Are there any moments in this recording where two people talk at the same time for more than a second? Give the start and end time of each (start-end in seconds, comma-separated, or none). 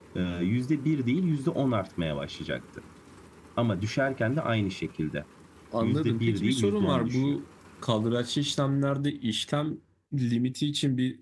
5.8-7.4